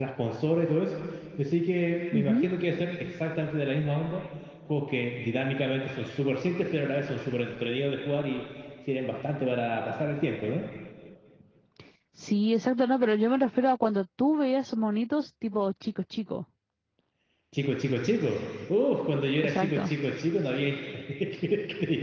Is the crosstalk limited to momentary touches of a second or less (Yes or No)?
Yes